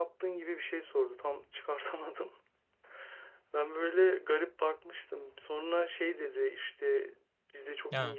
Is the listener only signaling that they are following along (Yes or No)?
Yes